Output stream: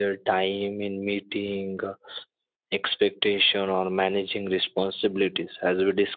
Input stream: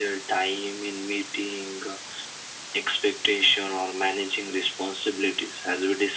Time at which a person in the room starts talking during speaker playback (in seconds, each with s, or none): none